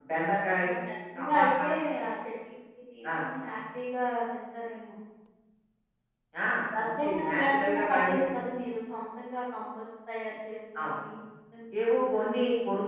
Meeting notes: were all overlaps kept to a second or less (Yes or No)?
No